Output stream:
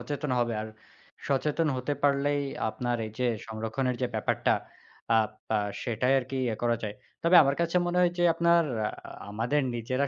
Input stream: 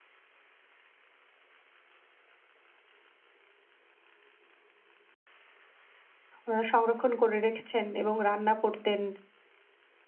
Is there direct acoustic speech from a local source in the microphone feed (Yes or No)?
Yes